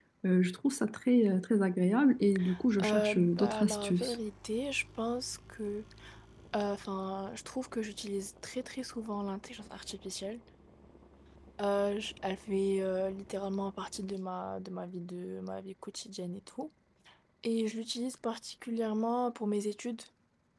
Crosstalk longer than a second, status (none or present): present